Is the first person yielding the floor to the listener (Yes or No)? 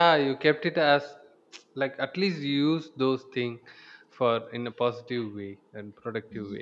Yes